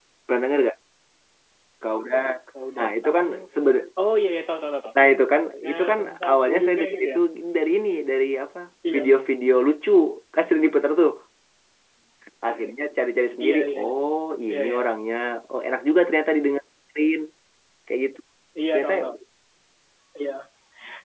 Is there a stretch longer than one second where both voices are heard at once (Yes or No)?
Yes